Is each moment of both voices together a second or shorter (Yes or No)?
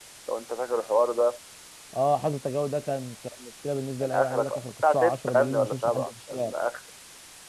No